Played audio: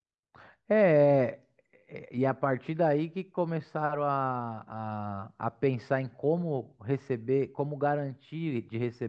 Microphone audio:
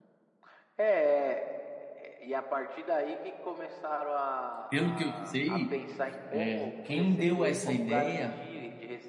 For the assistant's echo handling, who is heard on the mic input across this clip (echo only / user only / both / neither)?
both